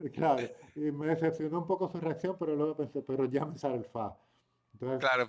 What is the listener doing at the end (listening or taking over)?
taking over